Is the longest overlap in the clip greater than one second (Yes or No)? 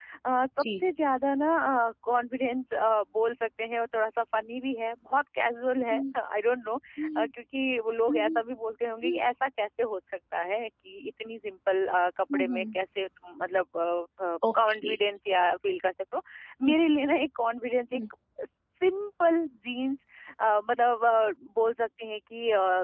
No